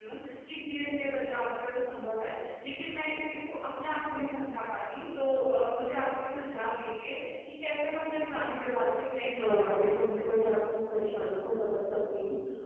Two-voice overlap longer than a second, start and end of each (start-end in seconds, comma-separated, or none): 9.3-10.5